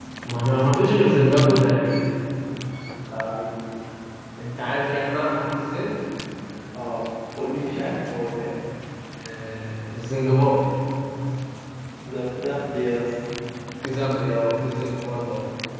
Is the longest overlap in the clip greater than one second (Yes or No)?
No